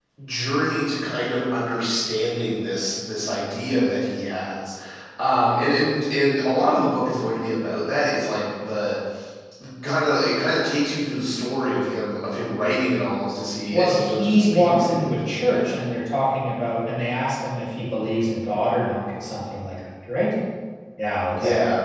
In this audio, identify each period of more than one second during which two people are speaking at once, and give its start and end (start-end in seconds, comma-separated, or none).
13.7-15.4